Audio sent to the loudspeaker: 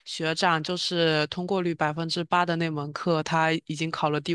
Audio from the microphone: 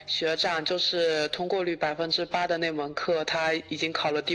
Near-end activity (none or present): none